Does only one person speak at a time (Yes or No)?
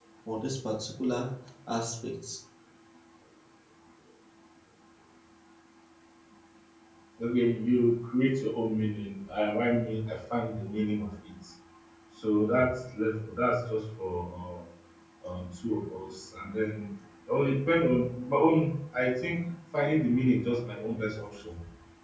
Yes